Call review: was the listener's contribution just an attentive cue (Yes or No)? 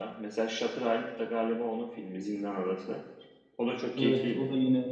No